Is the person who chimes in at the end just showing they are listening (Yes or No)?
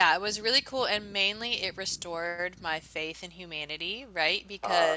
Yes